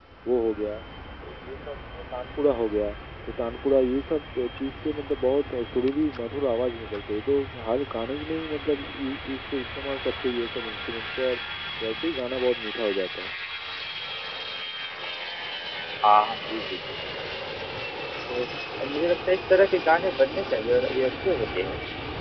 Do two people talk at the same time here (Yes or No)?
No